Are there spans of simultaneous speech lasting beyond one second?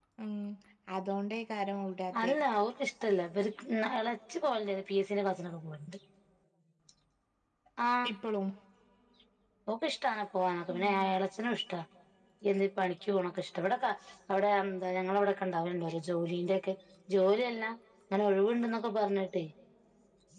No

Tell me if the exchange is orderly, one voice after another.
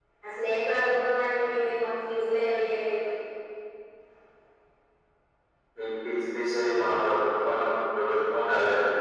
Yes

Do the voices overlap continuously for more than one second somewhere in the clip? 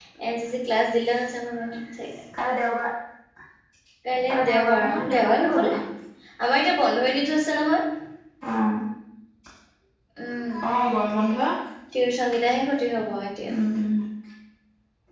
Yes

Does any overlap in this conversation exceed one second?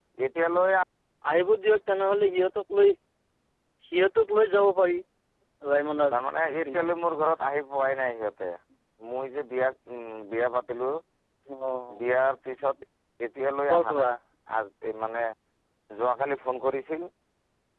No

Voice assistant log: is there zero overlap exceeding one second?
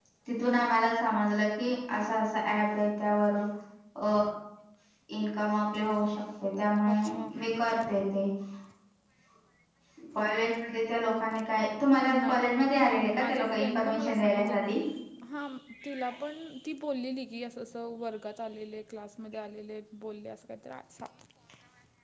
No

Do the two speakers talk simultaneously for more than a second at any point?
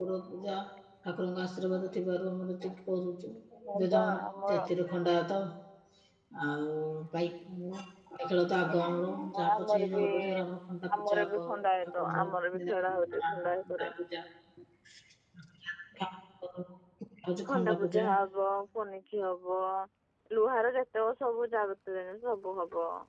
Yes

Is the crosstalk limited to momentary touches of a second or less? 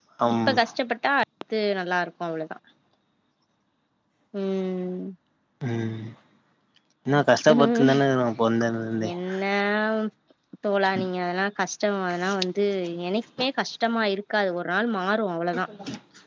Yes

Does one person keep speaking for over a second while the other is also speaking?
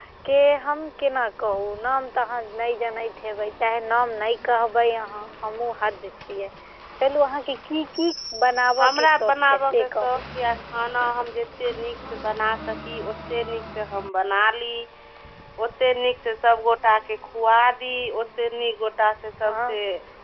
Yes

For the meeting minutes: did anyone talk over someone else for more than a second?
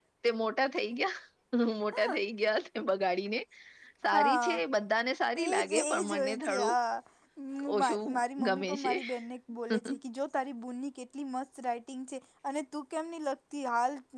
Yes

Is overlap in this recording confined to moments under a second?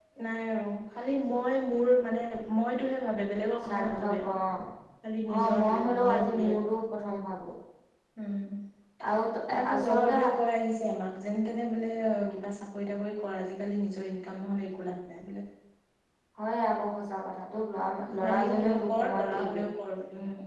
No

